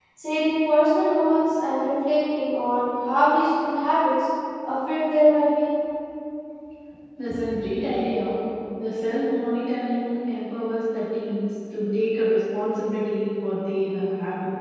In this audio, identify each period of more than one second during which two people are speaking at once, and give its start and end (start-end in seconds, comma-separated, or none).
none